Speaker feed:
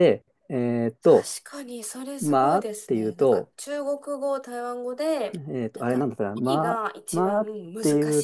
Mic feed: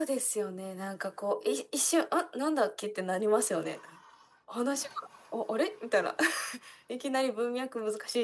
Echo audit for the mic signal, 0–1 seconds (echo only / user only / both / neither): user only